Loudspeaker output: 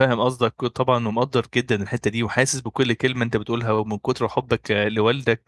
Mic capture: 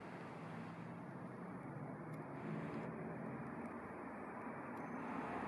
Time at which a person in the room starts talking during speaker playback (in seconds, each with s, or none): none